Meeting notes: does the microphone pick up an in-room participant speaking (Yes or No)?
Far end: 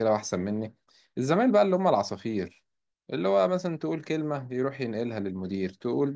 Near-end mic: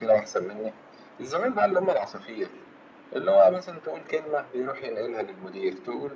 No